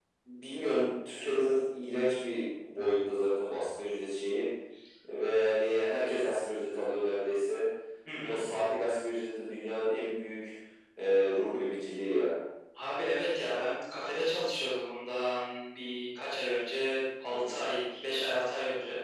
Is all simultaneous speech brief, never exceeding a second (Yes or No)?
Yes